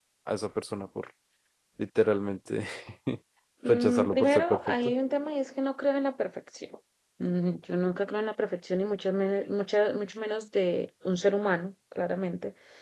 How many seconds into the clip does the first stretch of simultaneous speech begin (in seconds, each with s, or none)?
3.7 s